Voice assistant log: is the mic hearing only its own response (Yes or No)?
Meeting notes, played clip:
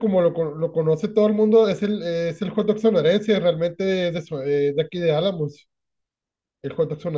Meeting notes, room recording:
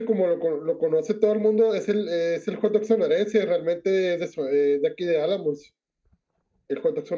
Yes